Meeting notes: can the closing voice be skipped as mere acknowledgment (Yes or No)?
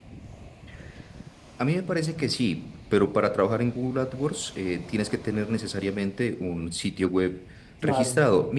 Yes